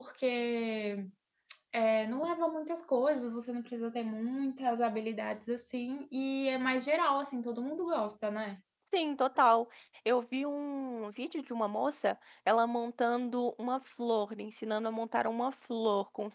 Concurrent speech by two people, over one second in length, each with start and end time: none

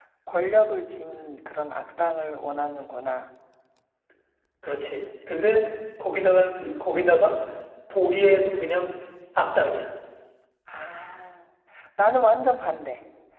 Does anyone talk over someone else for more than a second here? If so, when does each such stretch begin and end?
none

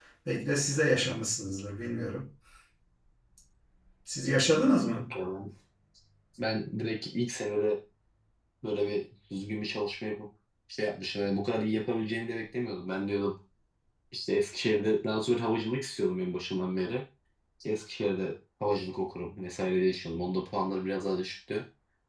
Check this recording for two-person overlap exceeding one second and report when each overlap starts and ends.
none

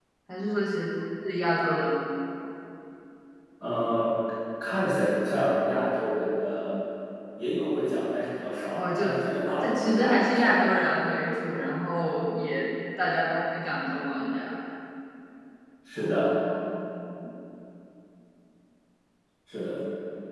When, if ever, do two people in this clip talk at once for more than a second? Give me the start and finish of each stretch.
9.6-11.1

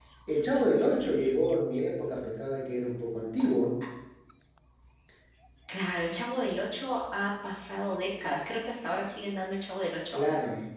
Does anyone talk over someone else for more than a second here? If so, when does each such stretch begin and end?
none

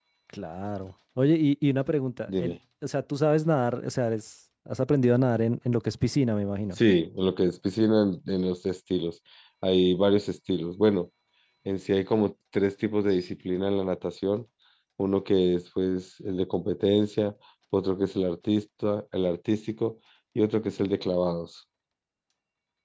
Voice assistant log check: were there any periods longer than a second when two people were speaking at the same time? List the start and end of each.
none

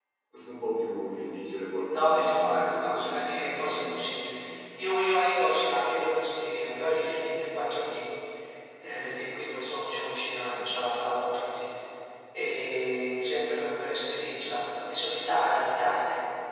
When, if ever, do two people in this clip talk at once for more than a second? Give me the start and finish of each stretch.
1.9-4.0

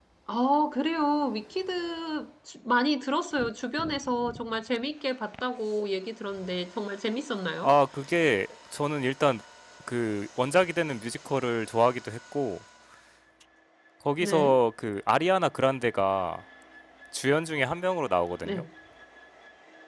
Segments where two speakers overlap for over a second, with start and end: none

